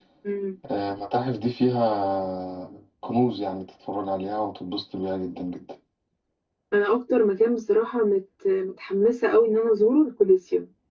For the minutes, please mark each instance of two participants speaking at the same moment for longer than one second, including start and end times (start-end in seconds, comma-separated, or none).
none